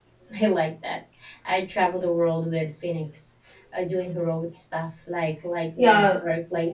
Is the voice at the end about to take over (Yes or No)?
No